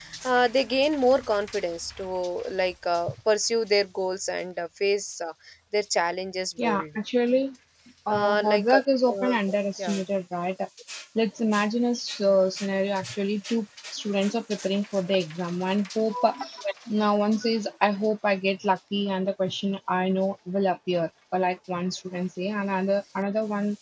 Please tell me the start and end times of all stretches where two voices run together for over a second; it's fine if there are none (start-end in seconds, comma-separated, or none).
8.1-9.3